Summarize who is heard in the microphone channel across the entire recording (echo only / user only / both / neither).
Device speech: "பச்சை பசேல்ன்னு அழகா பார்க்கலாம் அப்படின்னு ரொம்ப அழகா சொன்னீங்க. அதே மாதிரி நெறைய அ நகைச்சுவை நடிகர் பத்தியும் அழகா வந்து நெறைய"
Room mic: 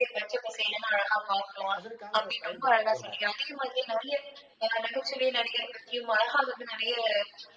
both